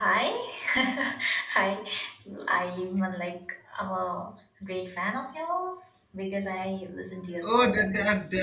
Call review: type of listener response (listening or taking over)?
taking over